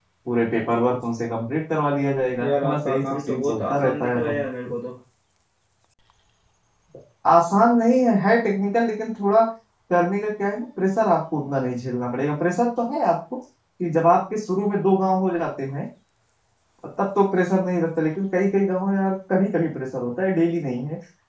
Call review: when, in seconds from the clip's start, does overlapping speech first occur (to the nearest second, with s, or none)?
2 s